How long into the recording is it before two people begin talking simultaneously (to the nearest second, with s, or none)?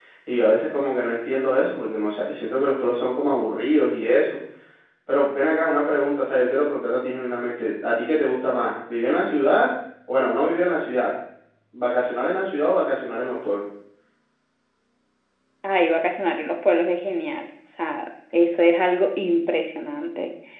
none